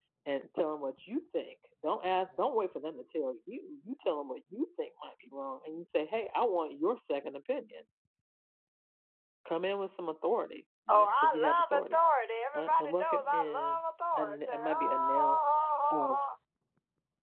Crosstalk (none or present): present